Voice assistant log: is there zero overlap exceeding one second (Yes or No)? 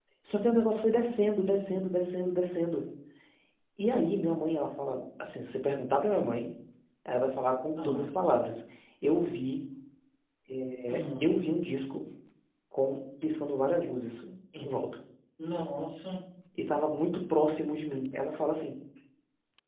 Yes